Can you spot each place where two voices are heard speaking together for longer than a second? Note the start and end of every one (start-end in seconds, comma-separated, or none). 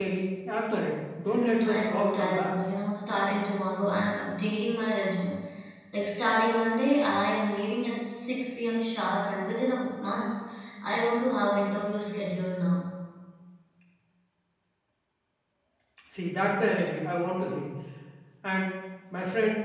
1.3-2.5